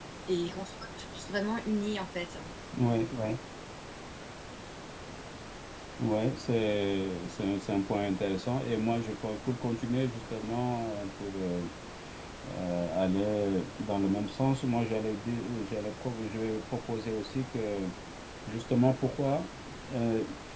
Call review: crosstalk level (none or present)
none